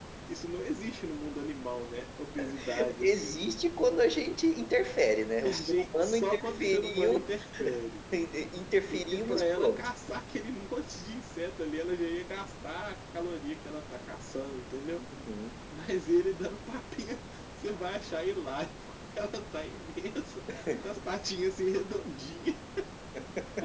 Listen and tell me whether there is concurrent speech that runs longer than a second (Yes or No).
Yes